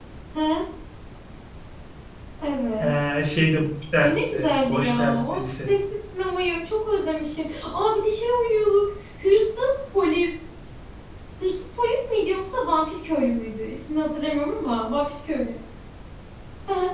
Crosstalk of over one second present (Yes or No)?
Yes